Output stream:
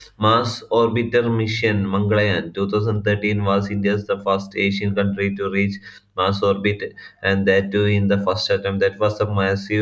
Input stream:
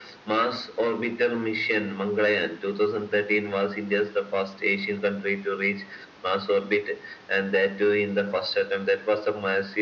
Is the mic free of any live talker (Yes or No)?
Yes